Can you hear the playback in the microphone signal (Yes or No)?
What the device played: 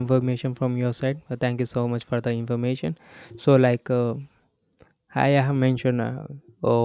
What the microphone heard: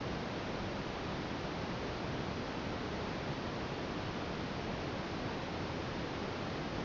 No